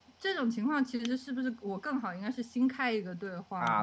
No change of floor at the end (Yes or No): No